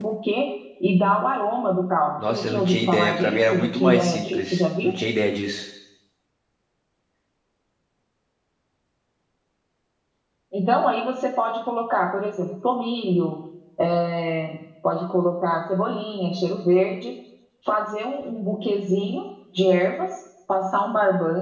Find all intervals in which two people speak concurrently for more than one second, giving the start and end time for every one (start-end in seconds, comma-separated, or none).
2.2-5.0